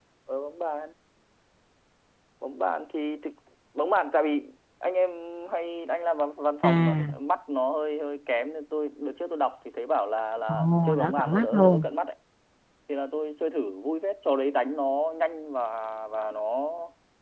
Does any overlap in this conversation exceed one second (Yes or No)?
Yes